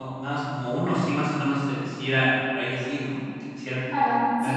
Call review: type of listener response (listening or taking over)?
taking over